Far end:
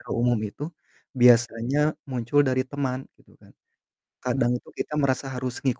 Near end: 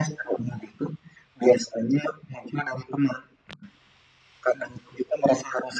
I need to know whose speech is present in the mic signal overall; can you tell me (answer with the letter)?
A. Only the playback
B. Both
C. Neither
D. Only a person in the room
A